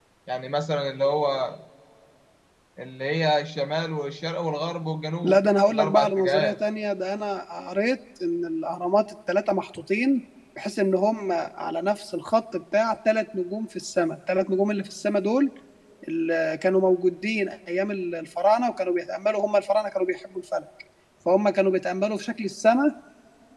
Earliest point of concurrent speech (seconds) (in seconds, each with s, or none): 5.2 s